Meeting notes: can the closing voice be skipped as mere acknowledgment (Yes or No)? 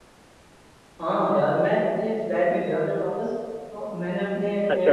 Yes